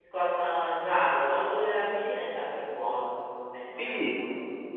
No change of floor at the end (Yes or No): No